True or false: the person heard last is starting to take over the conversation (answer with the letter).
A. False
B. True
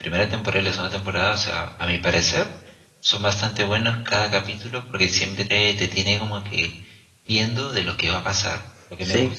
A